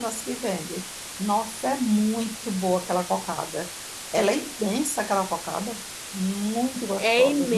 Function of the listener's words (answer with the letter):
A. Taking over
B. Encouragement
A